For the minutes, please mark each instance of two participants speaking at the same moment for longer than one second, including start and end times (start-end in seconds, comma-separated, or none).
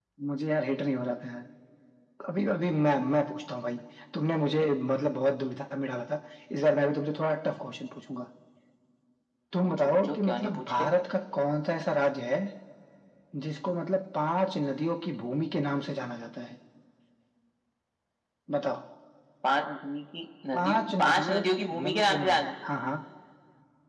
9.6-10.9, 20.5-22.5